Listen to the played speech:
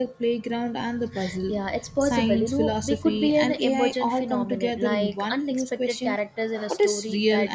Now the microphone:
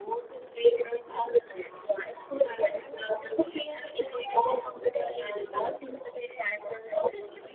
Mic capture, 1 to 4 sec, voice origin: echo only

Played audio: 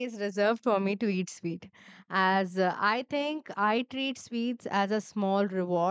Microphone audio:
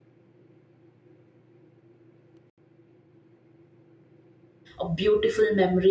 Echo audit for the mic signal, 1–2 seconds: neither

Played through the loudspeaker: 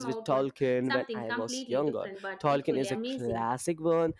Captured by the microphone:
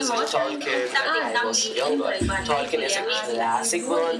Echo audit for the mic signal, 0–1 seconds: both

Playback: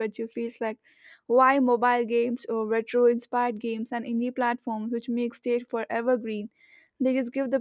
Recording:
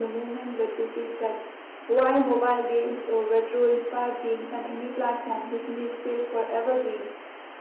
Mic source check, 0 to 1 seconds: echo only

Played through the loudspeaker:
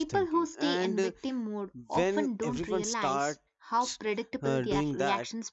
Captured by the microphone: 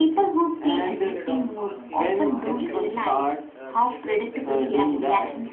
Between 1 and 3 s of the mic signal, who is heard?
both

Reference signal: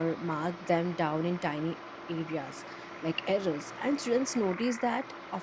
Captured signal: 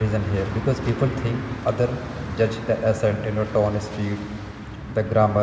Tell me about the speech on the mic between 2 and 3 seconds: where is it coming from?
user only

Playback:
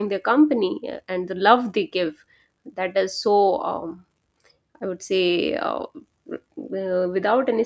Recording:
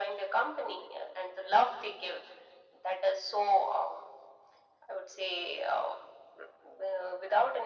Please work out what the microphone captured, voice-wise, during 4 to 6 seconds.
echo only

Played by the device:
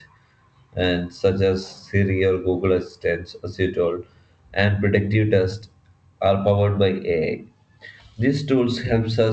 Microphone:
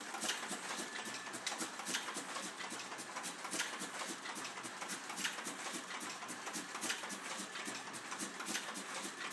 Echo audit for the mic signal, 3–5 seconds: neither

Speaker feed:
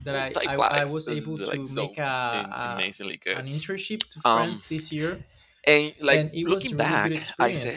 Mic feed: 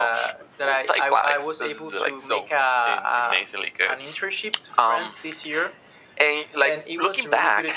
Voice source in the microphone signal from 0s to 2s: echo only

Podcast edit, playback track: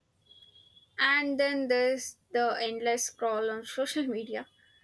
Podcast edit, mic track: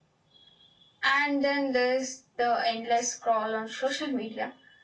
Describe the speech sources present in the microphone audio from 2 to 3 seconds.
echo only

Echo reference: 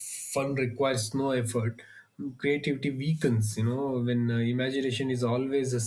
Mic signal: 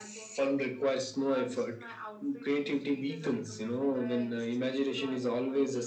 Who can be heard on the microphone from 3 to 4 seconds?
both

